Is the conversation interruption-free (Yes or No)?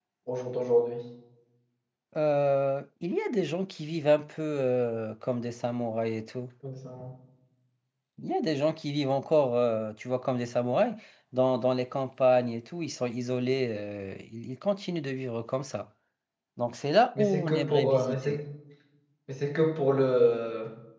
No